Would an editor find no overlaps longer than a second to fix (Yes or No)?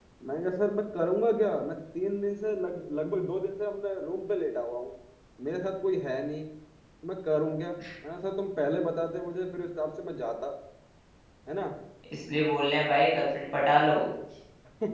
Yes